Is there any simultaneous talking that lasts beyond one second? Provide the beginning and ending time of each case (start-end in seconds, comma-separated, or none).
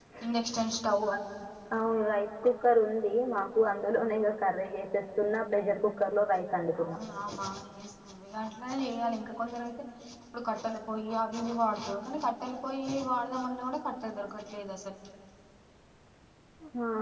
none